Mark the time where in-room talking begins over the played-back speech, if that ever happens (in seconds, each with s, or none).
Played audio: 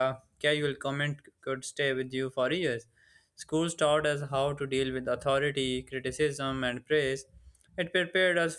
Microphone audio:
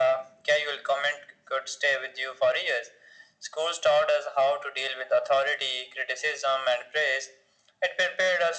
none